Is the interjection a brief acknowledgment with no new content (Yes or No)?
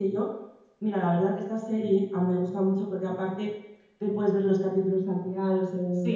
No